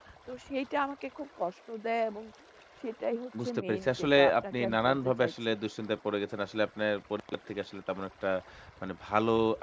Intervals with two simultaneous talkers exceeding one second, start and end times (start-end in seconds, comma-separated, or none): 3.4-5.3